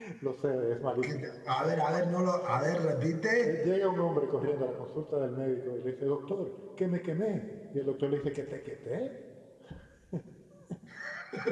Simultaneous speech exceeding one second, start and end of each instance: none

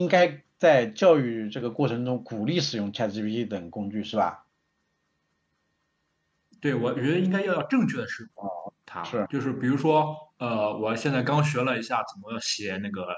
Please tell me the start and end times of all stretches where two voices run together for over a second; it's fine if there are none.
none

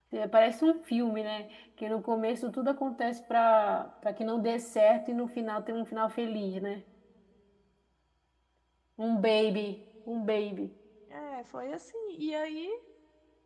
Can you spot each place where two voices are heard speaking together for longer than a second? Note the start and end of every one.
none

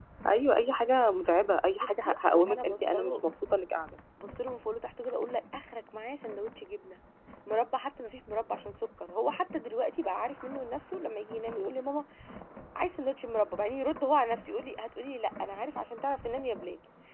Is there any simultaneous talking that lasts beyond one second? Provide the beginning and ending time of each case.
1.8-3.2

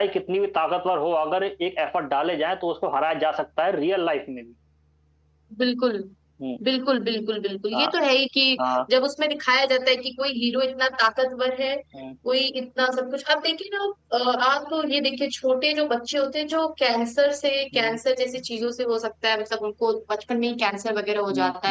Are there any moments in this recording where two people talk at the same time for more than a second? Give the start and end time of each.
none

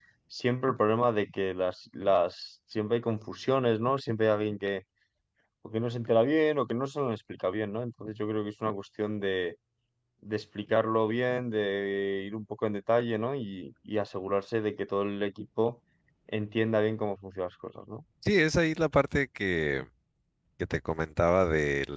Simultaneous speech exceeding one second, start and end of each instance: none

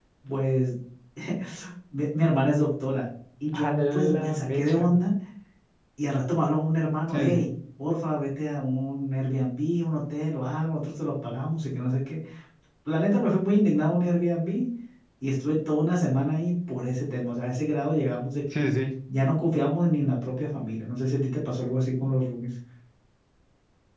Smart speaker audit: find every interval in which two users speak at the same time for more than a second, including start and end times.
3.5-5.0

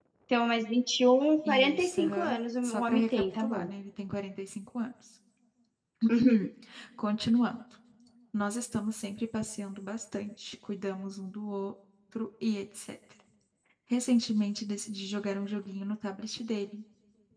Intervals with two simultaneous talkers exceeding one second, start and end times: 1.4-3.7

